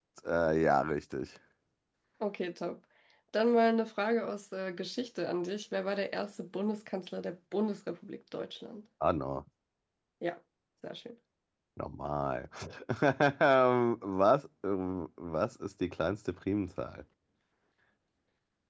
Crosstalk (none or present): none